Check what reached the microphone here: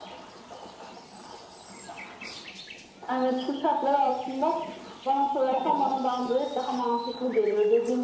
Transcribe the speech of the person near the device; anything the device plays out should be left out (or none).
hı hı.